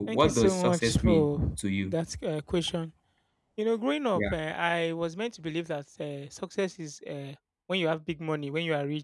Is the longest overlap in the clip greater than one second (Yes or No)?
Yes